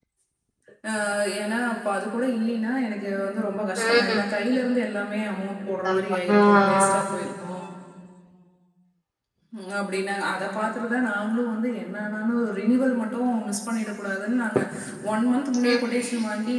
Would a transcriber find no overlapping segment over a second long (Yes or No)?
No